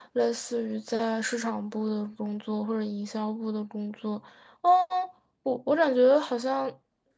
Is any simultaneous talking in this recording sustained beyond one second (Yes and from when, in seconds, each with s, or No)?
No